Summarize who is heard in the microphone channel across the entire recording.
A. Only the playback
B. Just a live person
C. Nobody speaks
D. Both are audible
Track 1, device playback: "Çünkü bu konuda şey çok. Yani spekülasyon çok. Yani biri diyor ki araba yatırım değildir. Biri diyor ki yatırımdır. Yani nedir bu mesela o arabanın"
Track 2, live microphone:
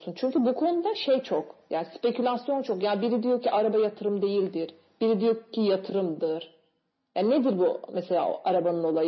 A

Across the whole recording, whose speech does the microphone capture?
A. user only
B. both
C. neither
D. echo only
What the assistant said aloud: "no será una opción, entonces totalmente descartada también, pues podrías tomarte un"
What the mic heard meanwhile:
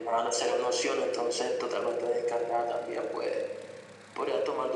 D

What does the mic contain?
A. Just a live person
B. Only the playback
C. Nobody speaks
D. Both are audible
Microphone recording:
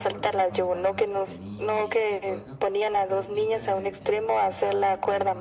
D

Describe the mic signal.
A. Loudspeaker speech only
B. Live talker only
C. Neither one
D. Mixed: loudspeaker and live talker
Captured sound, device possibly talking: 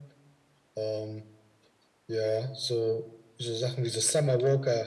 A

